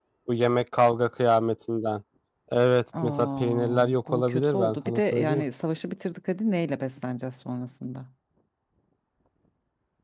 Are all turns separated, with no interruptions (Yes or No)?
No